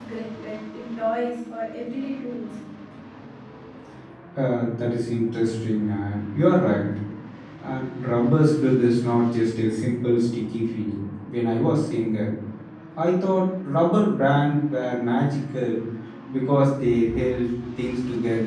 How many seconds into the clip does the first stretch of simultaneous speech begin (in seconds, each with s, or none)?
none